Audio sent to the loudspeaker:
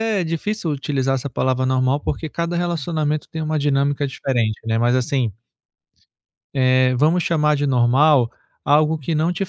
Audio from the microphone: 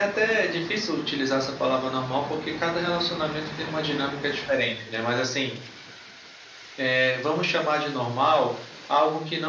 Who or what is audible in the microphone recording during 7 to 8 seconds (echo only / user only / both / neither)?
echo only